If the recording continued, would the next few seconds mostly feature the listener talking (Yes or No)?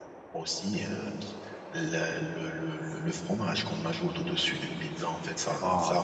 No